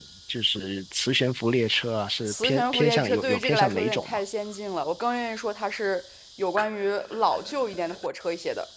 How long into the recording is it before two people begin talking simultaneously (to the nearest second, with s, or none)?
2 s